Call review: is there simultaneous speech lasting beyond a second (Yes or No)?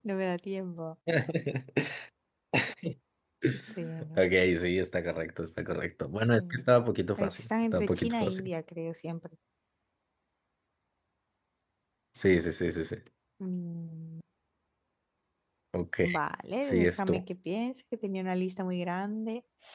Yes